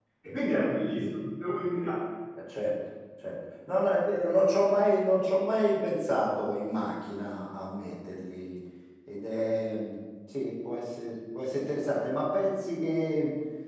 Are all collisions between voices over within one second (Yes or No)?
Yes